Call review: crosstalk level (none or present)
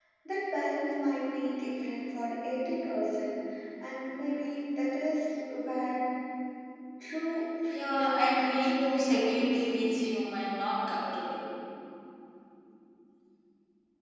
present